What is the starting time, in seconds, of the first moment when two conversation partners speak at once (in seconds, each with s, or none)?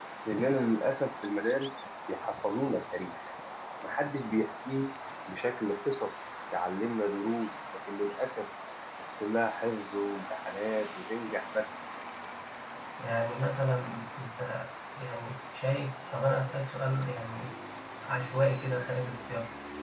none